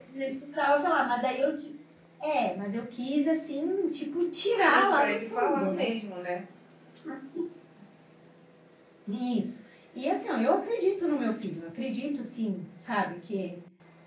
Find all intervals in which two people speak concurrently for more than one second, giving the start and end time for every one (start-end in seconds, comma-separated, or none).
4.6-6.0